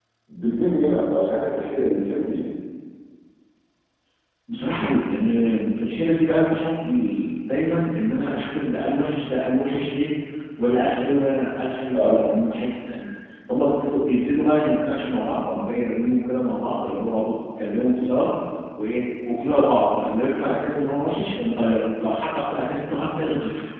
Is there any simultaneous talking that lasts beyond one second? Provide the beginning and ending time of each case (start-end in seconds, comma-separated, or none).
none